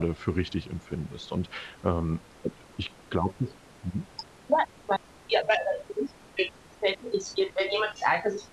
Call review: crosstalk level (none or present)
none